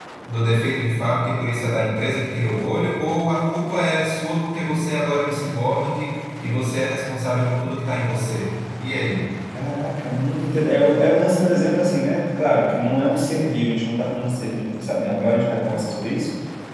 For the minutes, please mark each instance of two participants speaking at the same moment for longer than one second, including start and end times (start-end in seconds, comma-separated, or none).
none